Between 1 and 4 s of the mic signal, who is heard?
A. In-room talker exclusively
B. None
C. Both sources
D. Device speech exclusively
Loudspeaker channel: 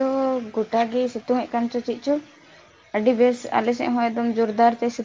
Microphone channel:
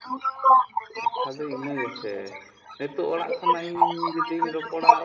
C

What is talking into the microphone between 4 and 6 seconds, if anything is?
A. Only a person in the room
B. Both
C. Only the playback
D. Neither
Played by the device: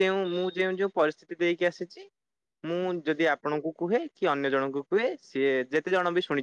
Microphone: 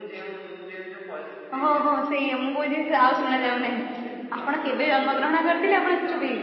B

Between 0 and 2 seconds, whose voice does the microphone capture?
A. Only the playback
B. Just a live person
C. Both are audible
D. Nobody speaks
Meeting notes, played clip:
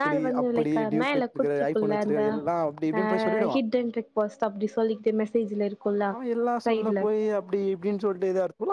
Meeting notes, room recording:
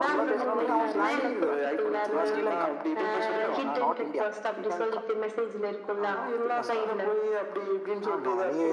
C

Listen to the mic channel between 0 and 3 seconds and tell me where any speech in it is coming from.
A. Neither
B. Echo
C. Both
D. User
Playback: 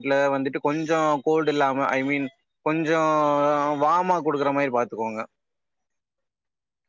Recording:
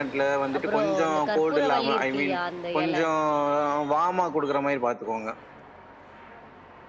C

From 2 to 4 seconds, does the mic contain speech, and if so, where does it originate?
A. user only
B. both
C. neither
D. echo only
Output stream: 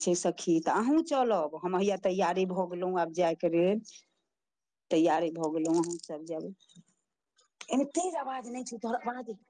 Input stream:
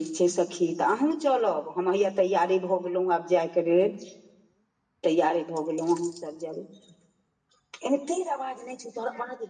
D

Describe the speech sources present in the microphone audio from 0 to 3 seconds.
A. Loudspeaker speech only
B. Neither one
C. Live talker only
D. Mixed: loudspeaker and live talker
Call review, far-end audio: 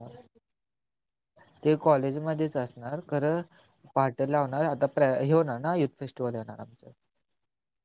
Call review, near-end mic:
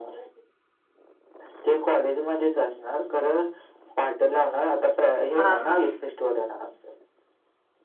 A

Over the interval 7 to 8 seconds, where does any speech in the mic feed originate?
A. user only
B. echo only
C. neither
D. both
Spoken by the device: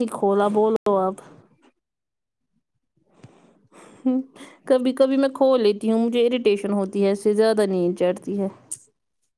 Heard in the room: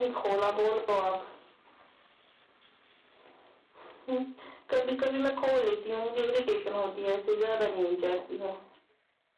B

